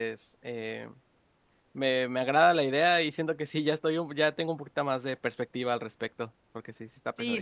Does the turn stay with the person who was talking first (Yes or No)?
No